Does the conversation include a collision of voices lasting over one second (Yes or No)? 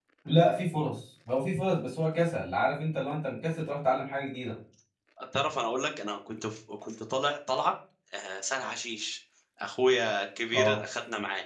No